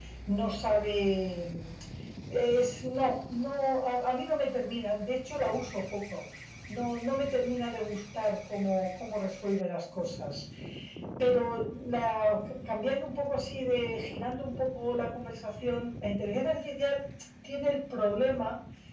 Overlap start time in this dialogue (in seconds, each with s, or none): none